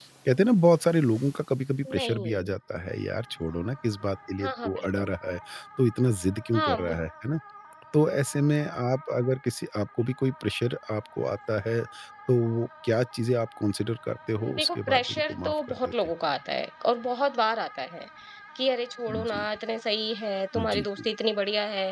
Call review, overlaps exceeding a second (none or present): present